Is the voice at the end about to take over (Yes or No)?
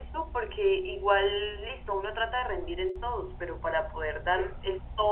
No